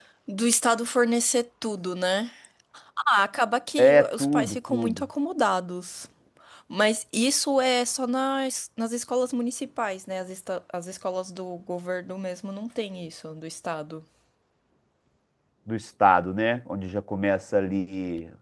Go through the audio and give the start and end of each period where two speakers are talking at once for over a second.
3.8-5.0

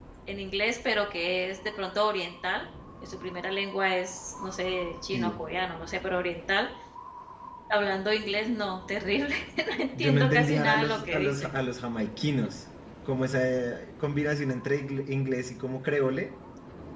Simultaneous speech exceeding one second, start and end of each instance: 10.0-11.5

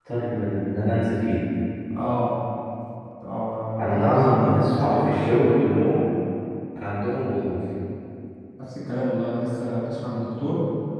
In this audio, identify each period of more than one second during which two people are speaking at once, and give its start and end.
3.8-5.4

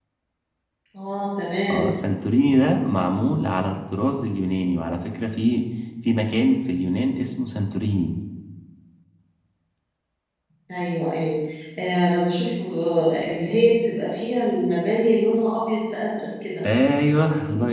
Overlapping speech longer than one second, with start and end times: none

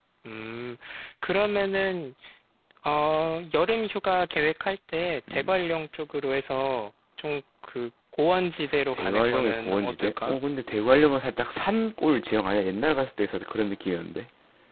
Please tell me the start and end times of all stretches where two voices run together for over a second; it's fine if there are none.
8.9-10.4

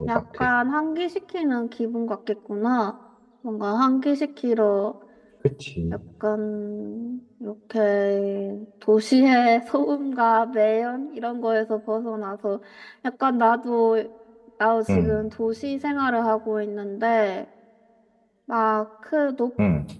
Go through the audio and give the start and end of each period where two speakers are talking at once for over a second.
none

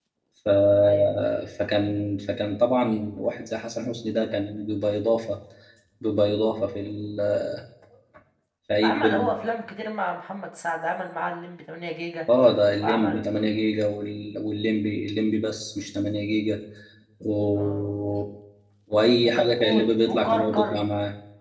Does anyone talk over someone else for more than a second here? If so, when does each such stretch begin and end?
19.2-20.8

